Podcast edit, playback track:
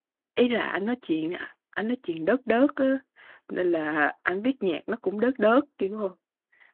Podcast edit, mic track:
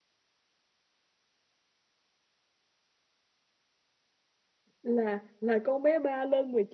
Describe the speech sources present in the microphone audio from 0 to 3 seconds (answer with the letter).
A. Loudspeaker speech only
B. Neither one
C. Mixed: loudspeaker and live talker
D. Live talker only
B